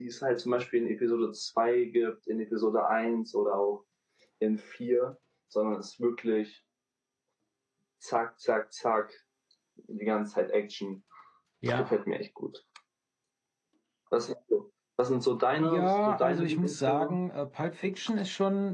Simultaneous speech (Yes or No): Yes